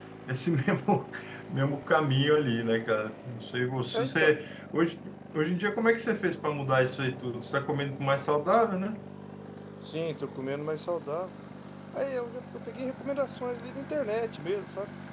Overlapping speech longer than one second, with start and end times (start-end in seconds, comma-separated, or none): none